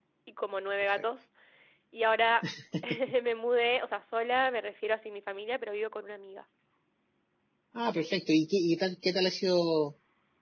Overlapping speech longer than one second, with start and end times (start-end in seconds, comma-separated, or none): none